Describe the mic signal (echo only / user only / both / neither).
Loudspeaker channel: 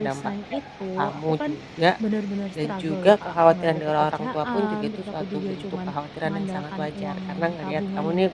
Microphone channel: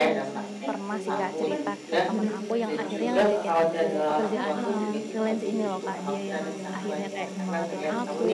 both